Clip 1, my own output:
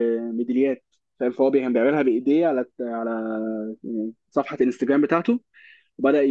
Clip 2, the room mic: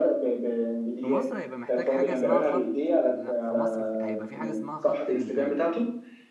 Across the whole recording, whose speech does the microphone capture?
both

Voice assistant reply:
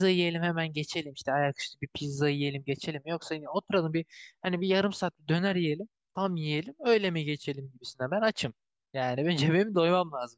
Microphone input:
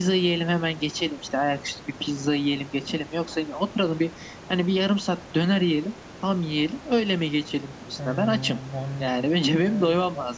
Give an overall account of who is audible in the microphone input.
both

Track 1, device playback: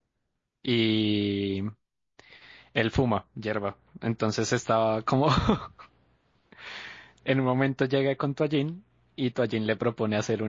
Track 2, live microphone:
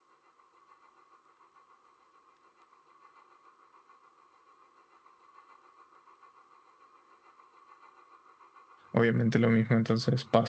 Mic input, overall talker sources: user only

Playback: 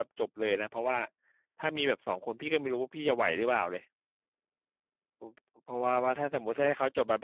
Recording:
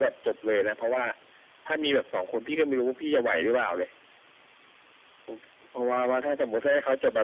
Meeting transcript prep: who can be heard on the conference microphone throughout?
echo only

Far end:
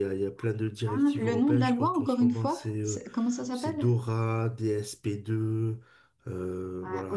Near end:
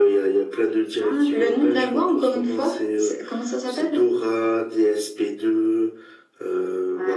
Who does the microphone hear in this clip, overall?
echo only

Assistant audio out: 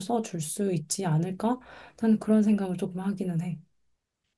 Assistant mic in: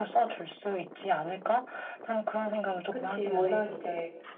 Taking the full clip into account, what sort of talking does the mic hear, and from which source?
both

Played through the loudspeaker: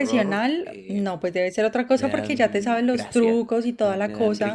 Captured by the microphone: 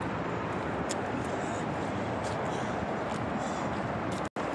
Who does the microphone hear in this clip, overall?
neither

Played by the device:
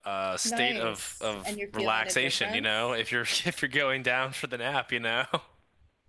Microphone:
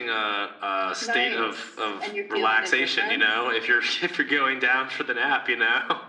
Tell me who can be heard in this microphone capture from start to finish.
echo only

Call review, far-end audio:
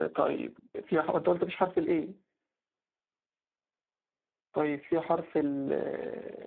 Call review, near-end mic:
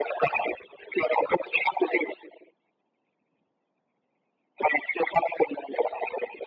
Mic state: echo only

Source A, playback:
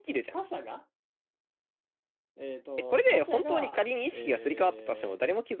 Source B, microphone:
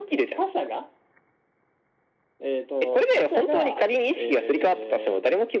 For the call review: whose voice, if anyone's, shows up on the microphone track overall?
echo only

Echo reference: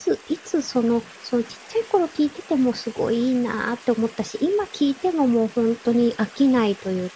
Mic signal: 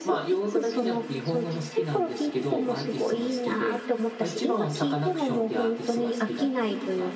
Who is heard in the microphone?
both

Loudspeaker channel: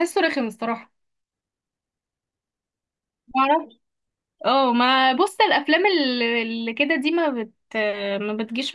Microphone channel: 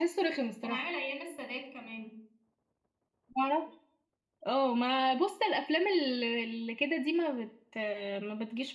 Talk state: both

